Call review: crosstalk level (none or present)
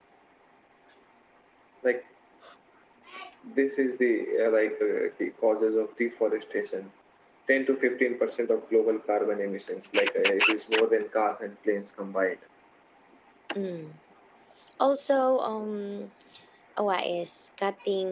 none